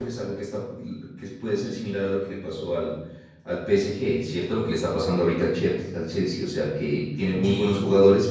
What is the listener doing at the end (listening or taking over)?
listening